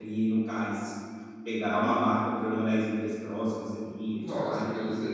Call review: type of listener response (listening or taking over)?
taking over